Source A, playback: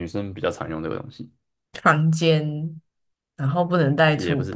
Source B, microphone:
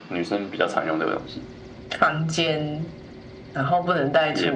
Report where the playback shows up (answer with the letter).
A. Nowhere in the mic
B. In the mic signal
B